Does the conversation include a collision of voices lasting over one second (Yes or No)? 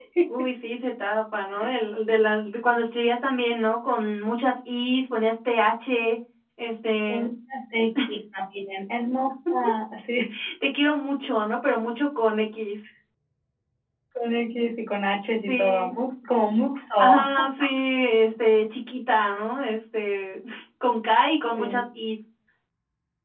No